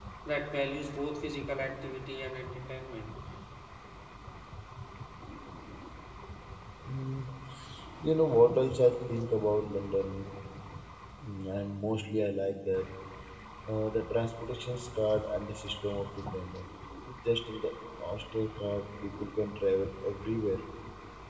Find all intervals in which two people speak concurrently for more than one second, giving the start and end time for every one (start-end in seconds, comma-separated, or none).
none